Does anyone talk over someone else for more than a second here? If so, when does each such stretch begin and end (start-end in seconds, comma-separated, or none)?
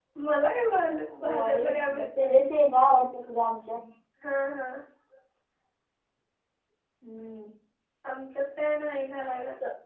1.2-2.5